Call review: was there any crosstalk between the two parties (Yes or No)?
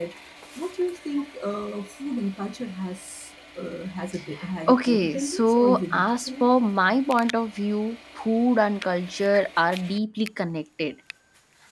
Yes